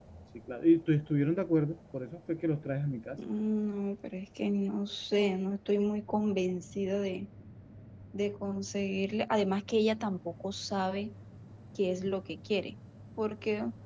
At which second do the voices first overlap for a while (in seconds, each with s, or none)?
none